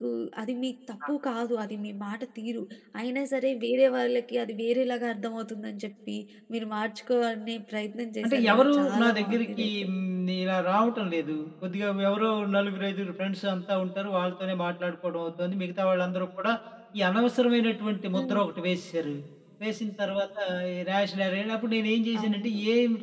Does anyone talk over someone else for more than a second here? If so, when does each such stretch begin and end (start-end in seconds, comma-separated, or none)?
8.2-9.9